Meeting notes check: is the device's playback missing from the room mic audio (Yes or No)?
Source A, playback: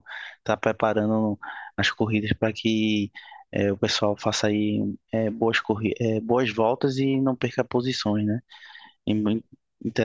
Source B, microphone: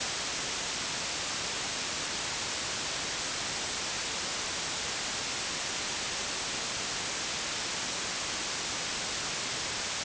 Yes